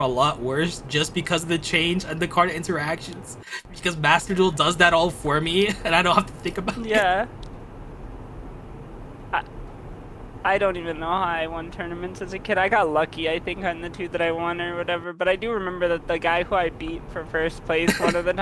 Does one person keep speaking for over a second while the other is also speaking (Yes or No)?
No